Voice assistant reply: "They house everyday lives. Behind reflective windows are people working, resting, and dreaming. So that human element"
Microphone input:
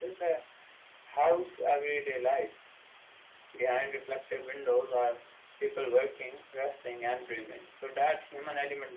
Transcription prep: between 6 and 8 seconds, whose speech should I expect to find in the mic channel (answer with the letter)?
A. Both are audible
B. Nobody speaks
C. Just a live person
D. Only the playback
D